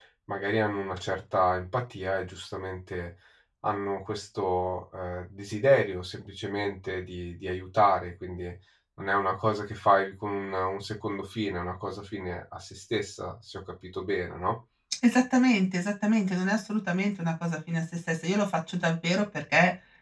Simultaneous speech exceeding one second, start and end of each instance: none

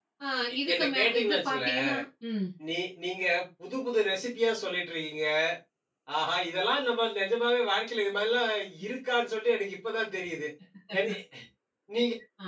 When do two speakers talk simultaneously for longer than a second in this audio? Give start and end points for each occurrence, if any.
0.7-1.9

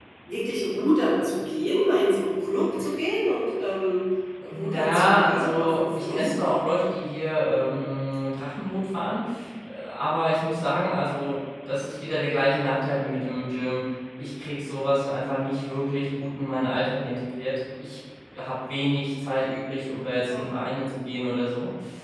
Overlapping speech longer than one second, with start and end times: 4.5-6.3

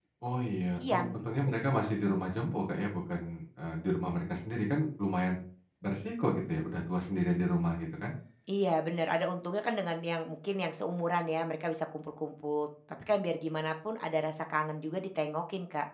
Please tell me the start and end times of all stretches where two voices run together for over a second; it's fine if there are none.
none

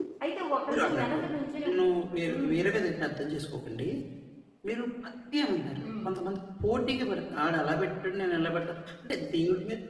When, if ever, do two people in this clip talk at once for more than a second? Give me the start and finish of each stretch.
none

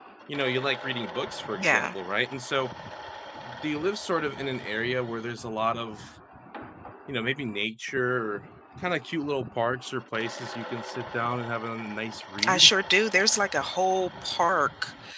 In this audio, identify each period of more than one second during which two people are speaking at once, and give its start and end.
none

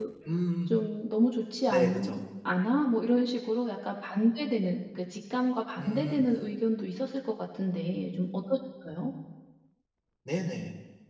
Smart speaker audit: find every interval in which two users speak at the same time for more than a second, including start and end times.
none

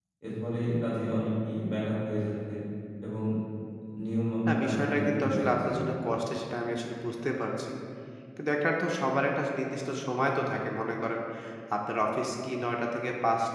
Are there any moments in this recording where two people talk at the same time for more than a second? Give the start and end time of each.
4.5-5.8

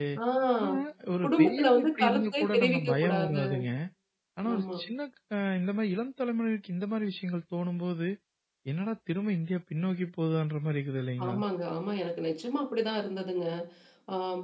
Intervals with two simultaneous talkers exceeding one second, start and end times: 1.2-3.4

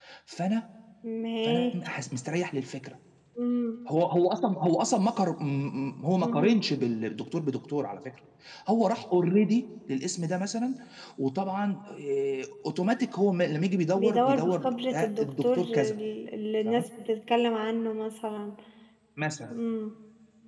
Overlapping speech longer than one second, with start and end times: 14.0-15.7

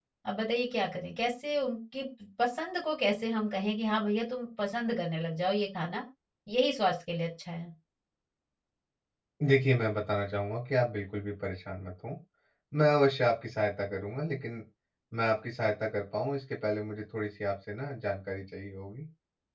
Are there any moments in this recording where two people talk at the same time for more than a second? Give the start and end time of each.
none

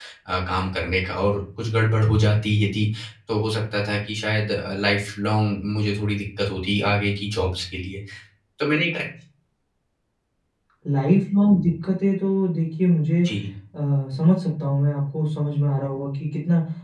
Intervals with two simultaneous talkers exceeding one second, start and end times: none

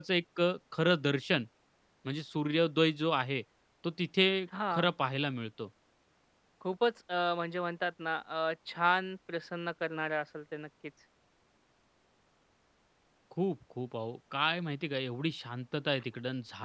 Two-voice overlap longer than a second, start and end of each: none

